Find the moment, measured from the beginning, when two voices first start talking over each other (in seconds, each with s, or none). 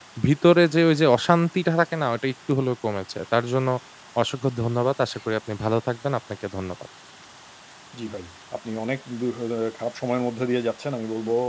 none